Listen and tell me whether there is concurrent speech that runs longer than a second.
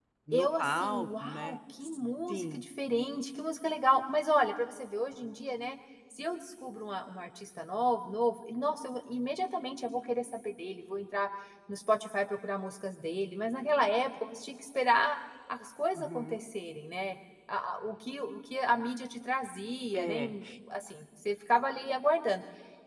Yes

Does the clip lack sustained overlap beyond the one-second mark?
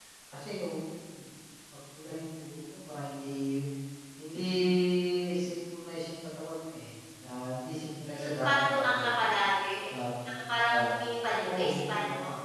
No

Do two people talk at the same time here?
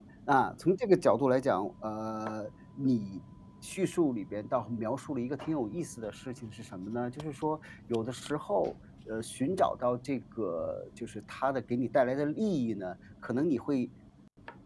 No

